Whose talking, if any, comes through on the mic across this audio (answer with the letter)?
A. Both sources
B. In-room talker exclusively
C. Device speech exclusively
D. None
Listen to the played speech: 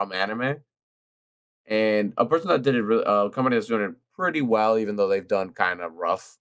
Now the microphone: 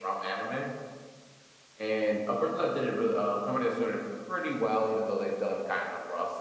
C